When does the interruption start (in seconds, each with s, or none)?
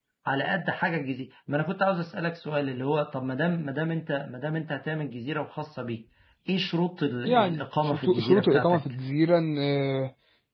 7.2 s